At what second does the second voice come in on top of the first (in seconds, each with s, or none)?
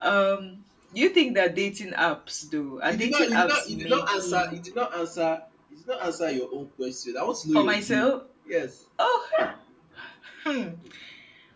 2.9 s